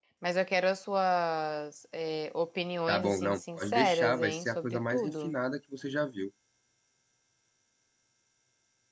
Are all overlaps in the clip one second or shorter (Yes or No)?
No